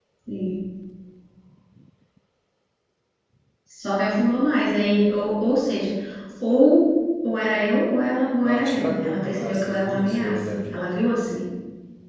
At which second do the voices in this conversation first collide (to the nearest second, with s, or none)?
8 s